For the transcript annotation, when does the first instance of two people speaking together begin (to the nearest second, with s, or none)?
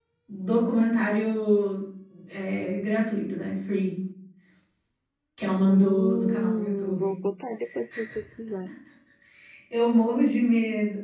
6 s